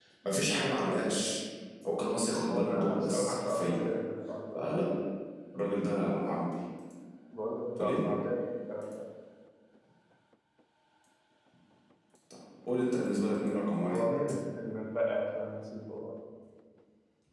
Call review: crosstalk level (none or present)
present